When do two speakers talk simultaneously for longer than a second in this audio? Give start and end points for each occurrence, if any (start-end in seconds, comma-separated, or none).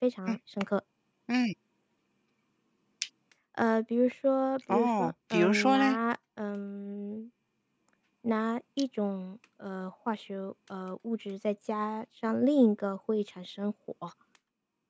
4.7-6.0